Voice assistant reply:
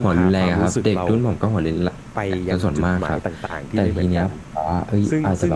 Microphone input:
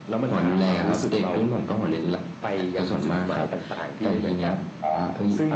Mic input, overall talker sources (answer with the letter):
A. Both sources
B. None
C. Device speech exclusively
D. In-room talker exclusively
C